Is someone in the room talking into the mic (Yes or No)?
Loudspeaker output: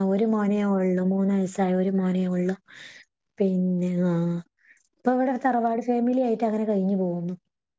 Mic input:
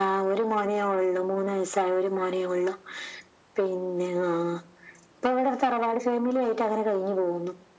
No